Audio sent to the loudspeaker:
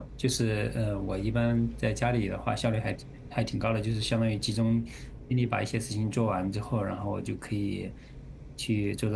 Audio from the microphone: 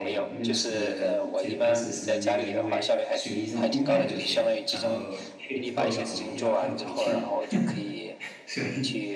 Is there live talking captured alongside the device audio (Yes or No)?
Yes